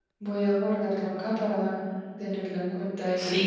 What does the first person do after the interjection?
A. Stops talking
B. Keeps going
A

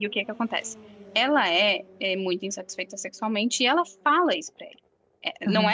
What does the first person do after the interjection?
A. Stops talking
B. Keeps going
A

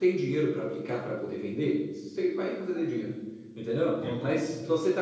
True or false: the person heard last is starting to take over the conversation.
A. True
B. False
B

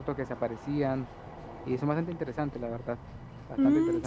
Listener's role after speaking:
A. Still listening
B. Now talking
B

